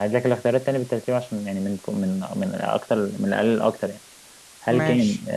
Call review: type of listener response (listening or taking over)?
listening